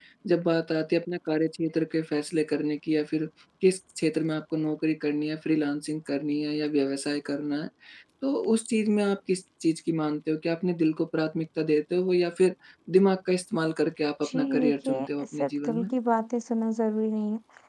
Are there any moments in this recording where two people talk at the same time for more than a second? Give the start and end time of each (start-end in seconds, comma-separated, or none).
14.2-15.9